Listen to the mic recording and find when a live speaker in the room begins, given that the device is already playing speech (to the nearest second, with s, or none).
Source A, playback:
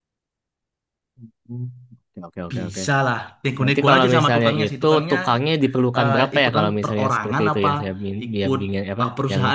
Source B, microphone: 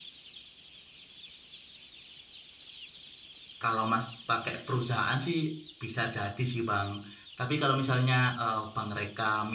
4 s